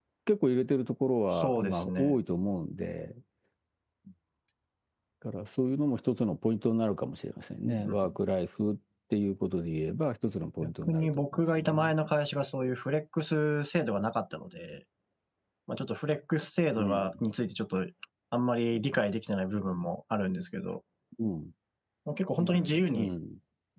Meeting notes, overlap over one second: present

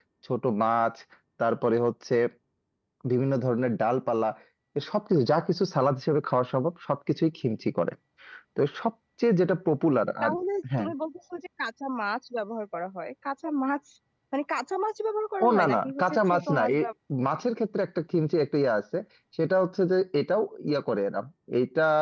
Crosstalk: present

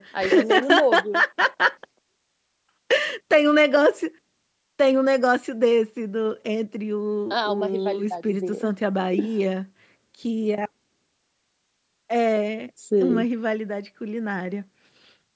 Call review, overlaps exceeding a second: present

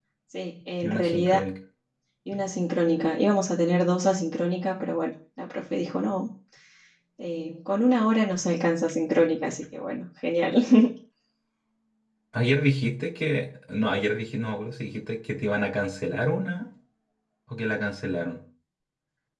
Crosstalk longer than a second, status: none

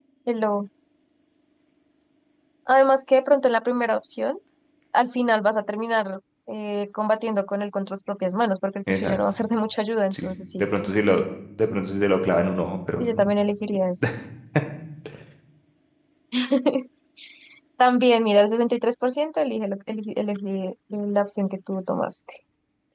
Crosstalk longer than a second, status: none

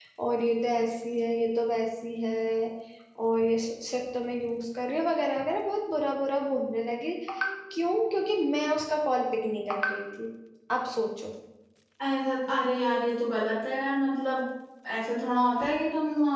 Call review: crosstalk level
none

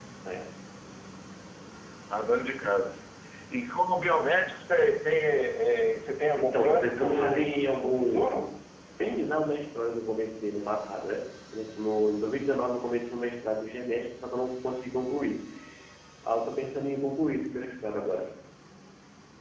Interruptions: present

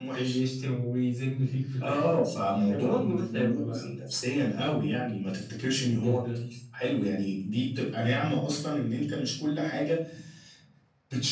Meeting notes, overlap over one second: present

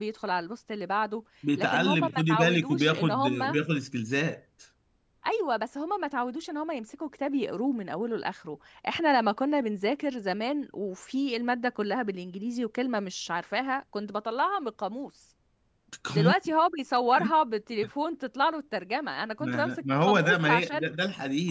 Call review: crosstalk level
present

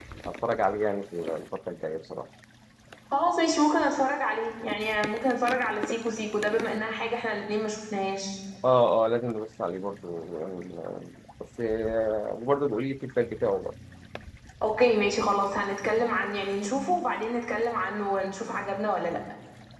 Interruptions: none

